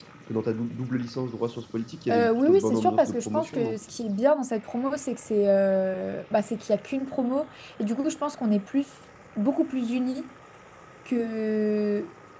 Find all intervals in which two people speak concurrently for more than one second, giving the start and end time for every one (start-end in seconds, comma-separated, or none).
2.1-3.8